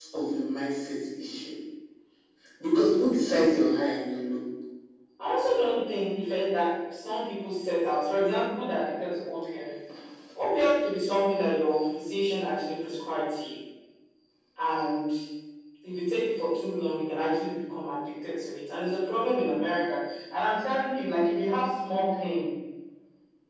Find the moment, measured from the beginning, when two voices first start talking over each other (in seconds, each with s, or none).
none